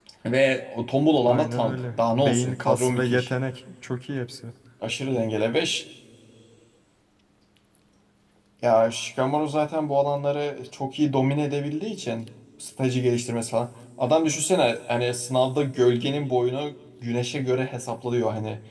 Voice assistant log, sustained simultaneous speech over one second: present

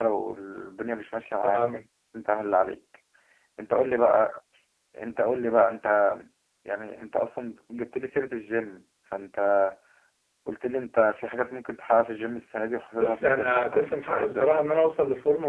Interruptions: present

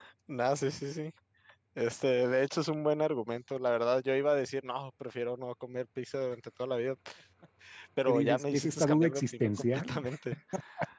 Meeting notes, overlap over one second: present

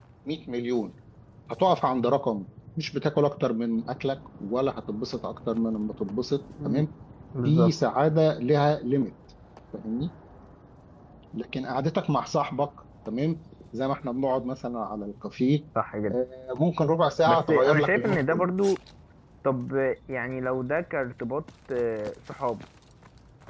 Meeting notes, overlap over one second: present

